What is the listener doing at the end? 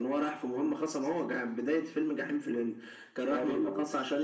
listening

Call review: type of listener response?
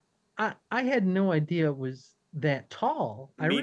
listening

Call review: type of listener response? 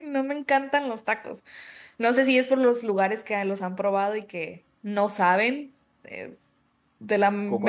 listening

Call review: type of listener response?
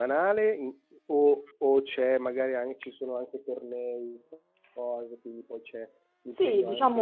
taking over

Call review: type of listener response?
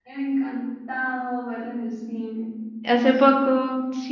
taking over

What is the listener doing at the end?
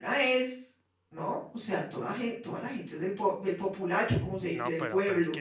taking over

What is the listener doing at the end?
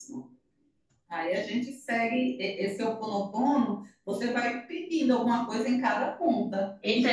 taking over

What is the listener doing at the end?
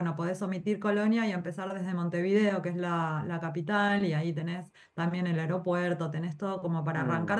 listening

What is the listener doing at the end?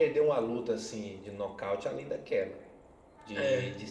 listening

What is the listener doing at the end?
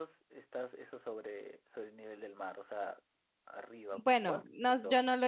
taking over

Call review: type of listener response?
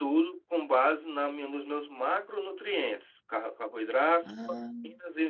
listening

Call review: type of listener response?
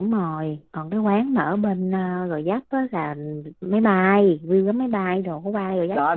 taking over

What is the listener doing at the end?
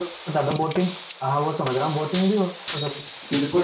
taking over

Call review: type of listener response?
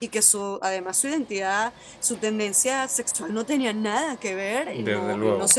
listening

